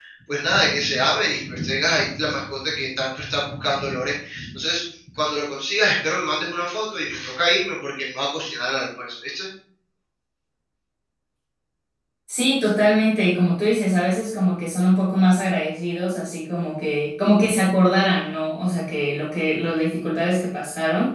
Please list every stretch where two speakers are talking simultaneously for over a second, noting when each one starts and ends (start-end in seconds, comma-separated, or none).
none